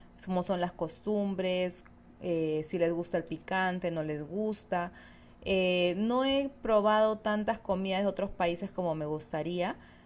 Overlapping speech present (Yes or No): No